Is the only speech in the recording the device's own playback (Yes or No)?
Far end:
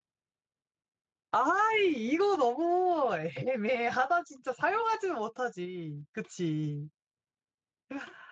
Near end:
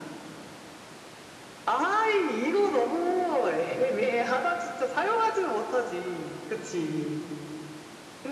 Yes